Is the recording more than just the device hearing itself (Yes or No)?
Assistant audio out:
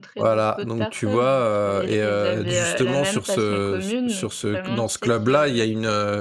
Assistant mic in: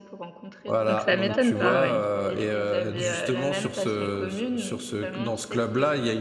Yes